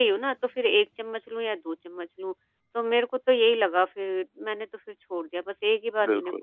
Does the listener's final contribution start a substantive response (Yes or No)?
Yes